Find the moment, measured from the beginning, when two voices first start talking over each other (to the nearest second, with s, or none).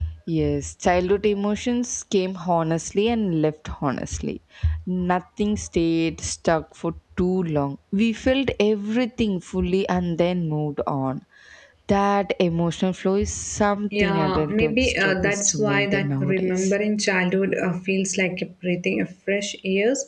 14 s